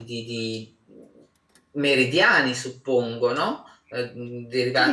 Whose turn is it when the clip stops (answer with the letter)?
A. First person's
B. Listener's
B